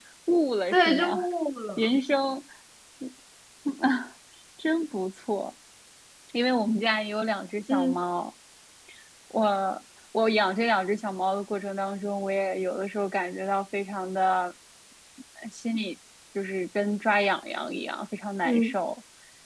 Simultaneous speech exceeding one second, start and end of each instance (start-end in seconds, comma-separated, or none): none